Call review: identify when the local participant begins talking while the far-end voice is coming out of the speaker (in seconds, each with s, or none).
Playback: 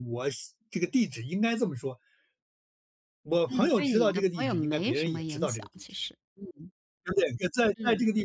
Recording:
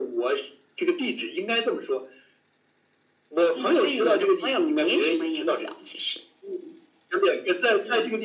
none